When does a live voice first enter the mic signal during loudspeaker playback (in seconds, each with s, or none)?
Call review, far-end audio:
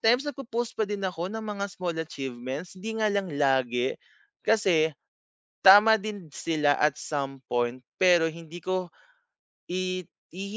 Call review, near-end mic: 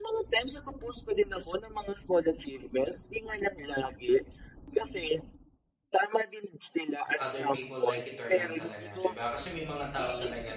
7.2 s